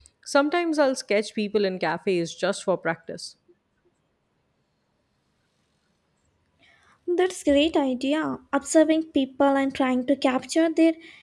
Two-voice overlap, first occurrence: none

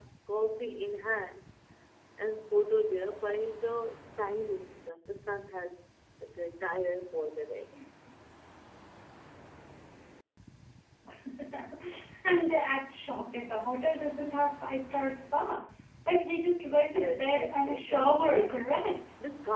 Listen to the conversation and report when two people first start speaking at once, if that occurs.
16.7 s

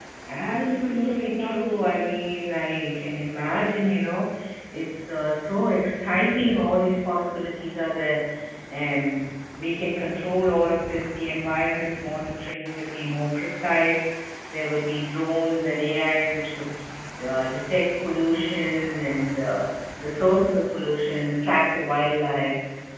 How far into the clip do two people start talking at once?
0.5 s

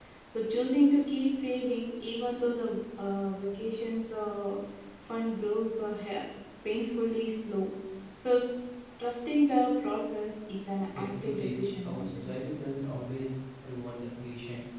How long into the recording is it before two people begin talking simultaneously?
11.0 s

